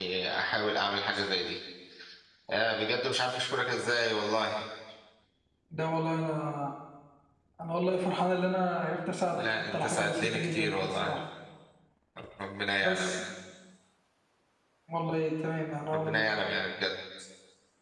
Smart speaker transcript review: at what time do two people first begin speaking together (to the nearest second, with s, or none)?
9 s